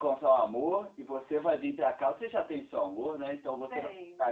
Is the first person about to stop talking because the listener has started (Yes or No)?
No